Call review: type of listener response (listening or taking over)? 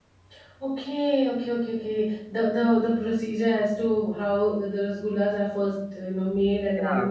taking over